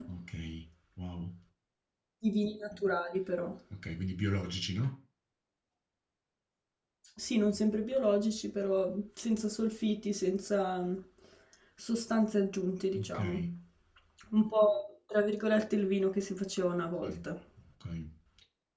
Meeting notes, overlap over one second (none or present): none